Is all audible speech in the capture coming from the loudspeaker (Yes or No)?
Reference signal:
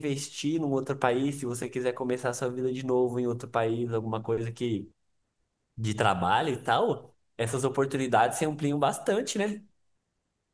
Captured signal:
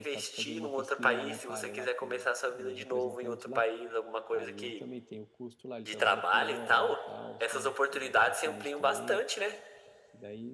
No